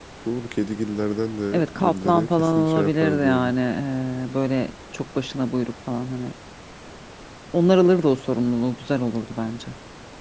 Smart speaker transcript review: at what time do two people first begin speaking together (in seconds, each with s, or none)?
1.5 s